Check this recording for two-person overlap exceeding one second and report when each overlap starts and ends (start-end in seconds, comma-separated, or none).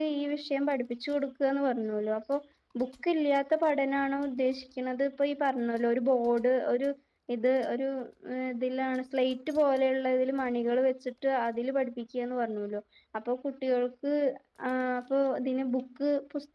none